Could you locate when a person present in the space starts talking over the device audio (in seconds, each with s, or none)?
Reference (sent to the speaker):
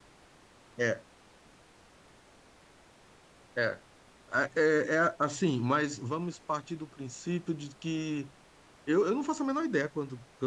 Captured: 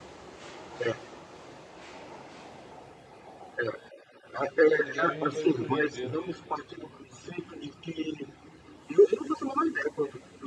4.7 s